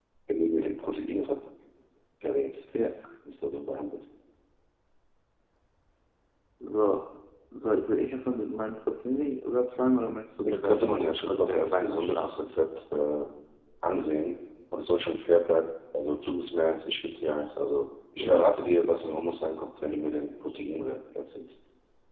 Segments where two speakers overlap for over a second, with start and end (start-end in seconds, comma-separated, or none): 10.4-12.5